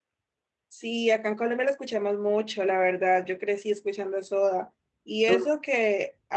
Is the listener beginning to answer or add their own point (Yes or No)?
No